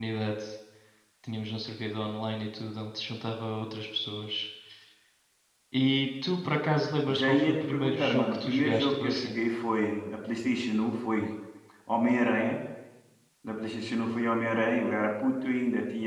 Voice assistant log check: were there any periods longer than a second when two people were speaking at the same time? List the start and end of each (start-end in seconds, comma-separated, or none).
7.1-9.3